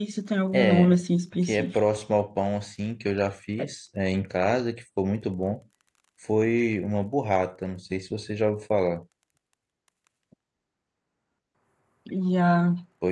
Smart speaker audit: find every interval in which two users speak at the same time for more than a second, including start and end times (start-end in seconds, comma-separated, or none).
none